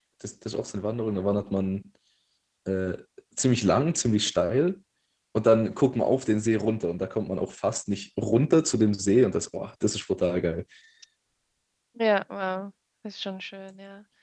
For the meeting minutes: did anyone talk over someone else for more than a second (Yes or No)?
No